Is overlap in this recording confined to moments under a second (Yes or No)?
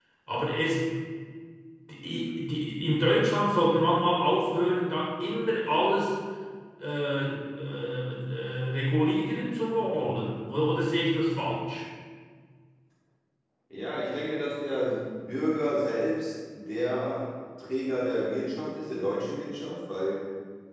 Yes